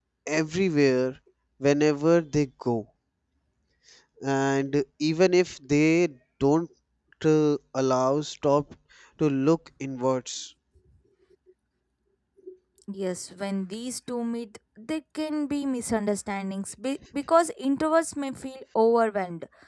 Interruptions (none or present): none